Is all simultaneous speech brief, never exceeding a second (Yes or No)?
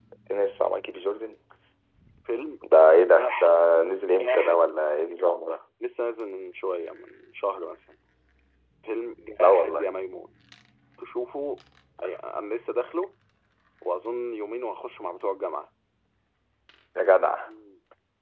Yes